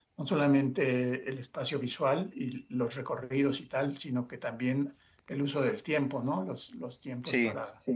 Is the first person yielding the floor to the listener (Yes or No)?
No